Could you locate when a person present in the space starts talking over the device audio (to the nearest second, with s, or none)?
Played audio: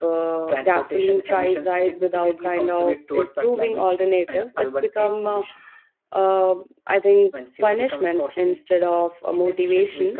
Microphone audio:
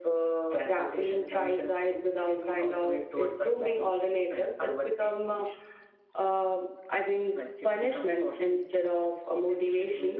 none